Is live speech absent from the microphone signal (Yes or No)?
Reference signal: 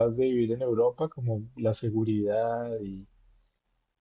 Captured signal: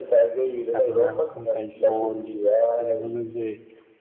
No